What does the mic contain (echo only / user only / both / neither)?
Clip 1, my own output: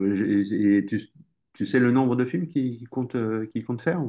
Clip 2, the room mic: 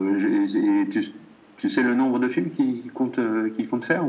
echo only